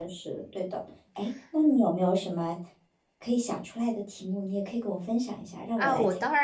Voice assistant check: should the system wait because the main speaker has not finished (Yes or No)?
No